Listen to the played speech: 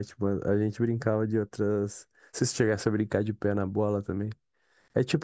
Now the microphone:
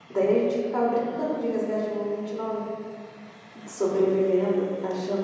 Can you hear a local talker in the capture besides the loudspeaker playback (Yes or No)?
Yes